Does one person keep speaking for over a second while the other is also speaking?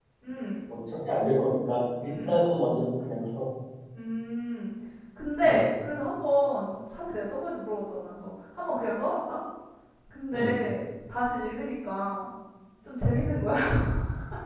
No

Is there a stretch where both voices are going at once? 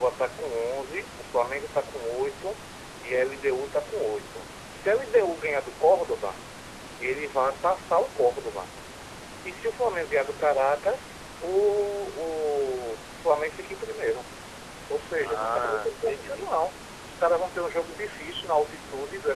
Yes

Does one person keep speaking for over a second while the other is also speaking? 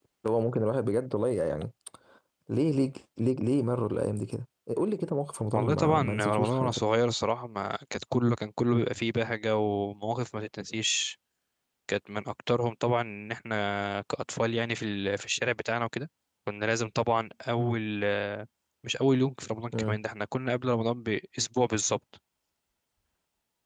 Yes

